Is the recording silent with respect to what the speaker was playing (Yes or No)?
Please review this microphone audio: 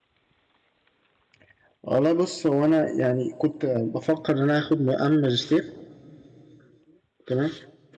Yes